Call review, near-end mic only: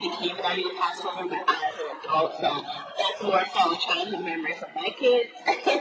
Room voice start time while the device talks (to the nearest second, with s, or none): none